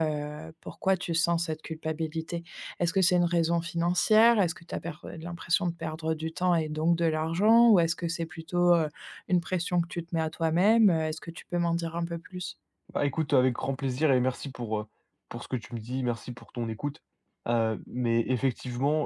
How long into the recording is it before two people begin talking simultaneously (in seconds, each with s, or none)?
none